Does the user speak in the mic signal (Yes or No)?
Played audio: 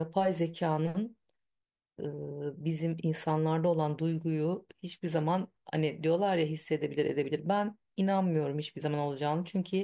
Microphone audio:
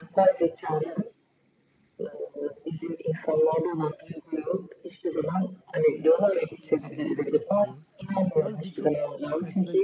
Yes